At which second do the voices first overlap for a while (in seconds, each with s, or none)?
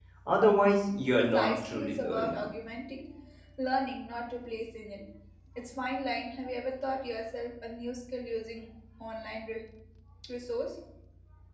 1.2 s